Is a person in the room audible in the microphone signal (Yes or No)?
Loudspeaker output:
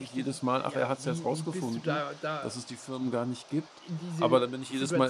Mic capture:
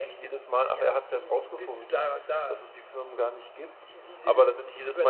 No